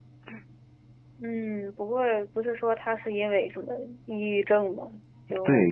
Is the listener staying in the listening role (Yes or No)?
No